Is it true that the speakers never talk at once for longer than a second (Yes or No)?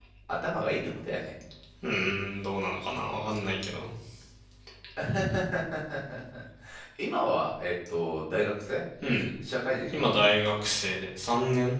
Yes